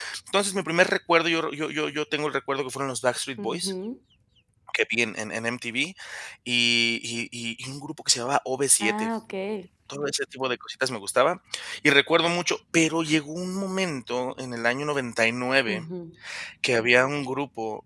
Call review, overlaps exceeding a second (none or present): none